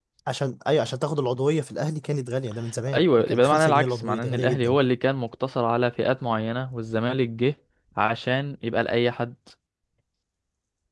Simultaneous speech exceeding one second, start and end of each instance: 2.9-4.8

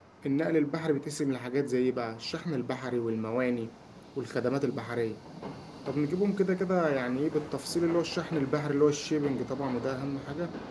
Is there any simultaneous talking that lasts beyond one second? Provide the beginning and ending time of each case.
none

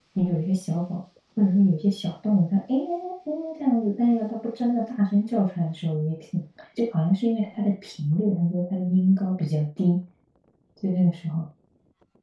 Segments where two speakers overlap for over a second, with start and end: none

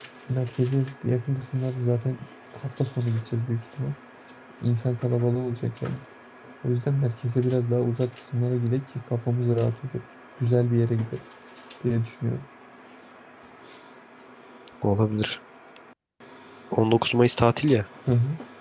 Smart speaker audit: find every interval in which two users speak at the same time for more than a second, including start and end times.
none

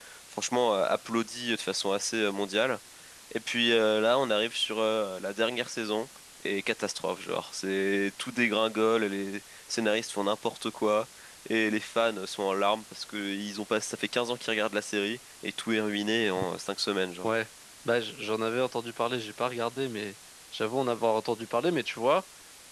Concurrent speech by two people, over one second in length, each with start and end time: none

